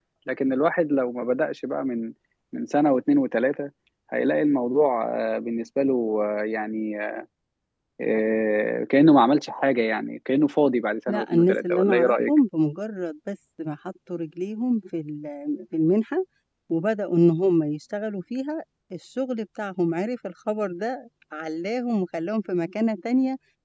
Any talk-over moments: Yes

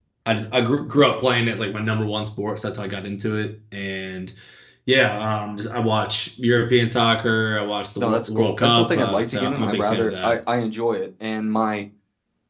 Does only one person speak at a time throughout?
No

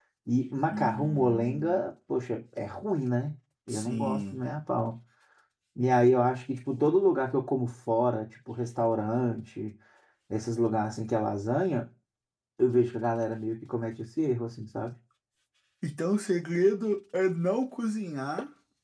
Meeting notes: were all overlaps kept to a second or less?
No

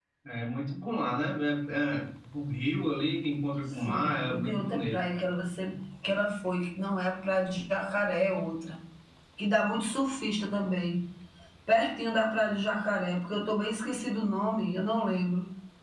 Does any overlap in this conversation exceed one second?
Yes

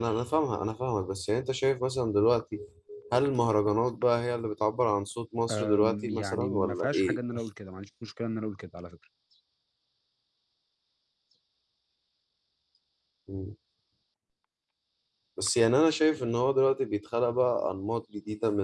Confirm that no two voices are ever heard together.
No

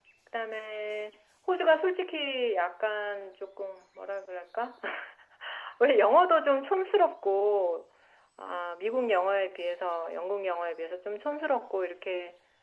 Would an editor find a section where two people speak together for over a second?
No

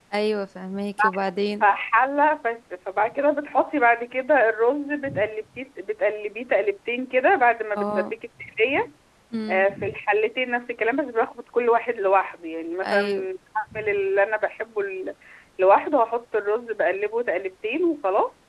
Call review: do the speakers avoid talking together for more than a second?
Yes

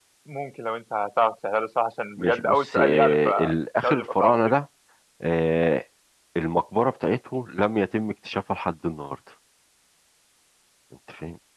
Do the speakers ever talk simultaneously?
Yes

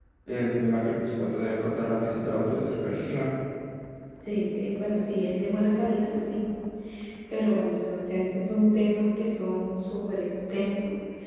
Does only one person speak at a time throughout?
Yes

